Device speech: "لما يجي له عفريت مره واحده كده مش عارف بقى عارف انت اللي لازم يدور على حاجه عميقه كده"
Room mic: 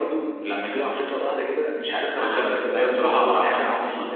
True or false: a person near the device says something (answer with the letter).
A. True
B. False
A